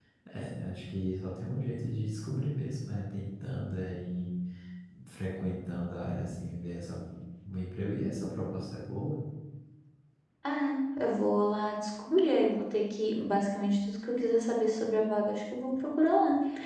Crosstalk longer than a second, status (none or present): none